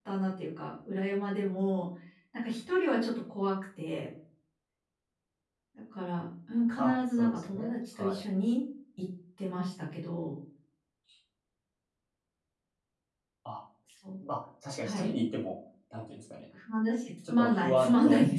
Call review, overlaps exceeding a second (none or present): present